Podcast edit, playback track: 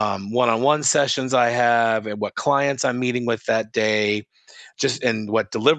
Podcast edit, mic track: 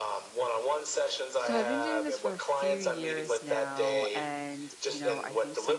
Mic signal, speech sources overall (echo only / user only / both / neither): both